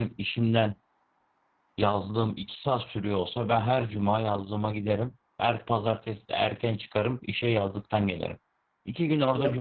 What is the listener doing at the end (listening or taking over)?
listening